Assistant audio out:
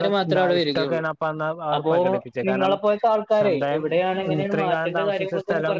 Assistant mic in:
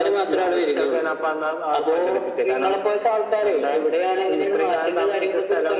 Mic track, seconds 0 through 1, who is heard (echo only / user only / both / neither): echo only